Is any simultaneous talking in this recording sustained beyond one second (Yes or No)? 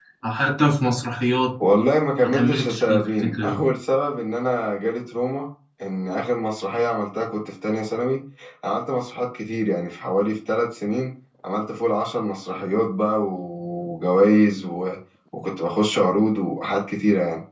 Yes